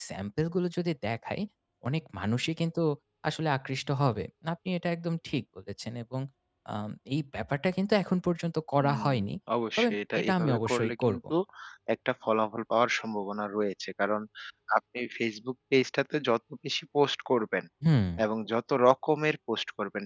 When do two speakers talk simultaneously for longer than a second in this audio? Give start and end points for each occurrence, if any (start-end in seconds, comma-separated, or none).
9.8-11.2